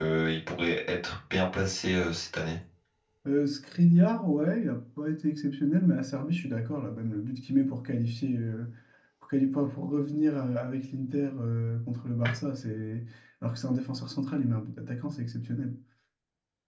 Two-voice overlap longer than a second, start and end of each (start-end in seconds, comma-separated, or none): none